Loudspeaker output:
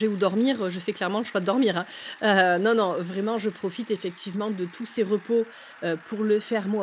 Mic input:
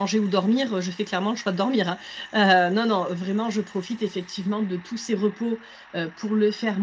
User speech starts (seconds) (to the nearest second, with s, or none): none